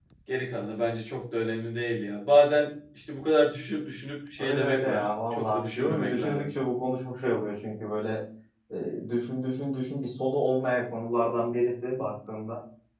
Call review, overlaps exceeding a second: present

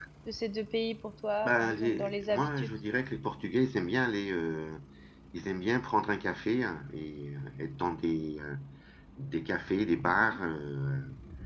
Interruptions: present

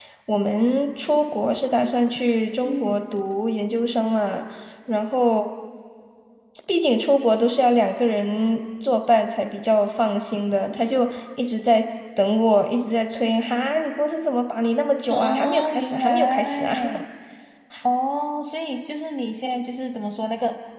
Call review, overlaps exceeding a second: present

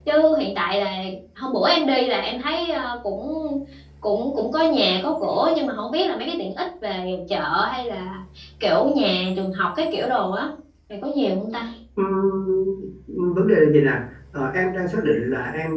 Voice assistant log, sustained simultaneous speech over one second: none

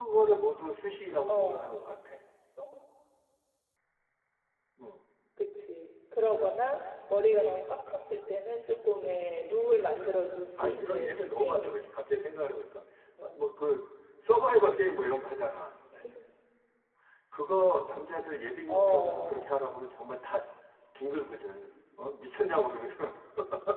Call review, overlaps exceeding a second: present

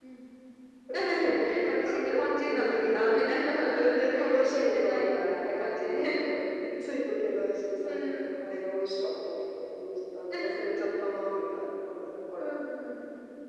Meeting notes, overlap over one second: present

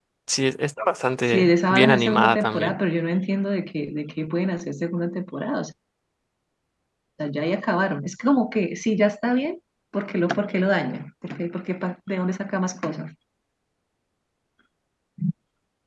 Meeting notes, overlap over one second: present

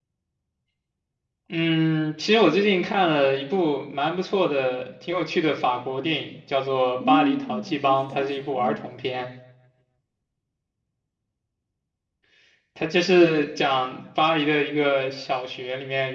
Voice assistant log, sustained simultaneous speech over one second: present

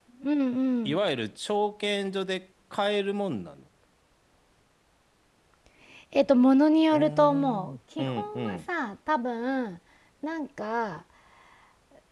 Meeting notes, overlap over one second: present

